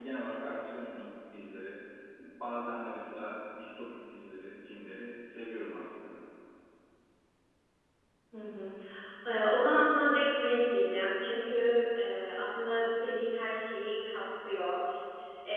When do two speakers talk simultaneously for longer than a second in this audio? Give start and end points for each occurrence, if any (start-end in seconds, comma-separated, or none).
none